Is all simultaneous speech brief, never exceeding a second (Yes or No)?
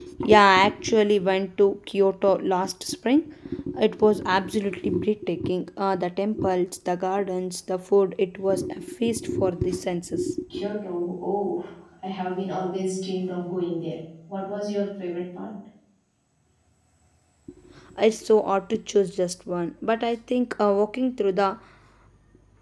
Yes